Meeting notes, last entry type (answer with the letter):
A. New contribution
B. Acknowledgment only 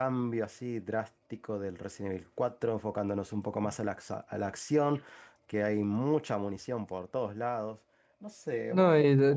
A